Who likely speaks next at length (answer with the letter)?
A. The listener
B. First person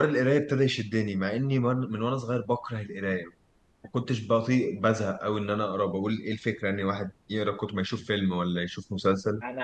A